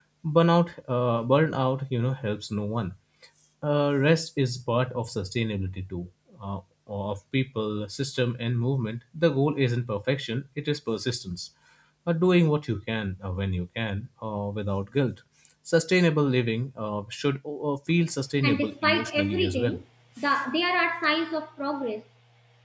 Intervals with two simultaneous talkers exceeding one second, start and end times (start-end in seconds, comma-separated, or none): 18.4-19.8